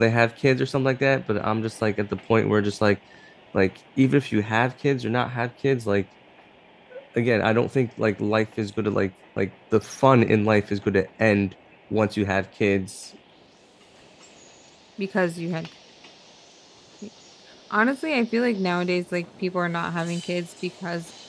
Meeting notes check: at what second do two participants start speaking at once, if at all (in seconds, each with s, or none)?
none